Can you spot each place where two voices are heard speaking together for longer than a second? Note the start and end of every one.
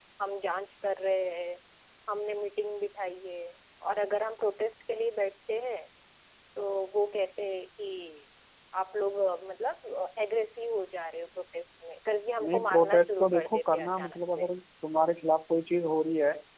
12.4-14.5

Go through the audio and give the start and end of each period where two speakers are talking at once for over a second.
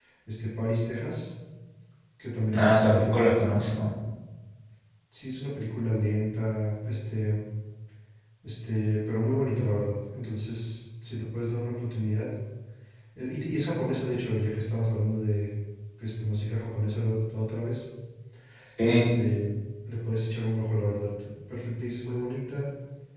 2.5-3.8

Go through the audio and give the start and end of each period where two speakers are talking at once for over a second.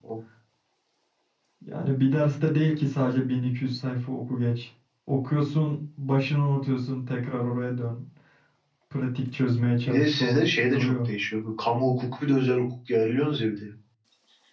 9.9-11.1

